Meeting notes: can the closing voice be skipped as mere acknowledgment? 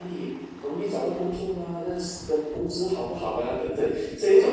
No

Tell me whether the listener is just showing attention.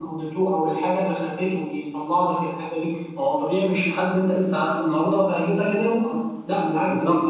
No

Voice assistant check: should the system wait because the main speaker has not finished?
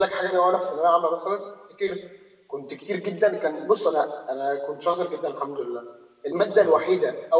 Yes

